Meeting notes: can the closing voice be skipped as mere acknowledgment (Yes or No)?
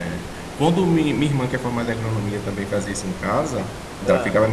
Yes